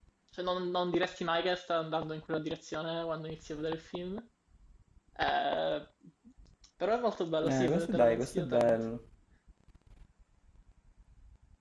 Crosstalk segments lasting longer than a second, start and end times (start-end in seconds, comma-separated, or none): 7.4-8.8